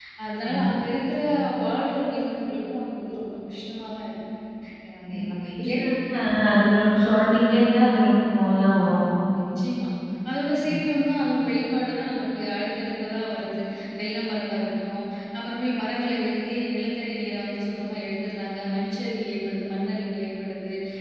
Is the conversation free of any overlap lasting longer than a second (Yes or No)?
Yes